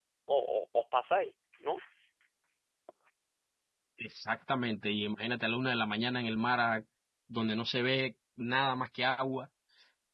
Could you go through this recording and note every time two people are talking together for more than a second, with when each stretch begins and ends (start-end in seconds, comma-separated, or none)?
none